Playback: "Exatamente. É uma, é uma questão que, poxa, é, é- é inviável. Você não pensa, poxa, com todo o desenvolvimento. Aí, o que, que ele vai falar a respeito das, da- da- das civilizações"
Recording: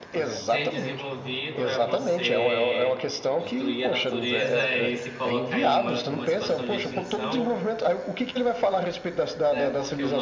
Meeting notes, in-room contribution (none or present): present